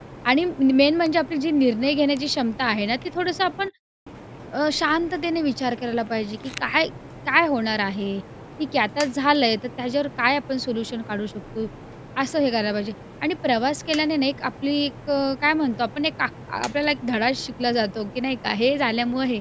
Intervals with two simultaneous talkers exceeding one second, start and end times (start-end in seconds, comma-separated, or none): none